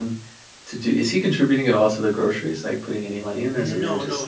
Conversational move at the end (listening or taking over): taking over